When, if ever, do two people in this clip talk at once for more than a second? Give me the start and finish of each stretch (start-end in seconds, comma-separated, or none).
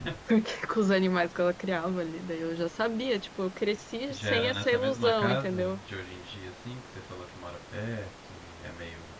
4.1-5.8